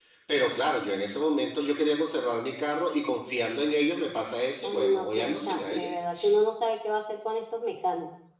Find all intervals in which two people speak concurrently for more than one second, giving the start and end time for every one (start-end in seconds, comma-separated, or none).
4.6-5.9